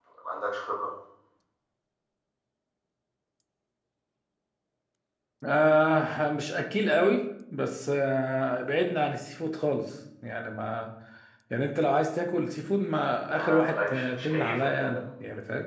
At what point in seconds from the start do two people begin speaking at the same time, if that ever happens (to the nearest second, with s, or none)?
13 s